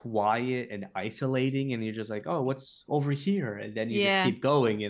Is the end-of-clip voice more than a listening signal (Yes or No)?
No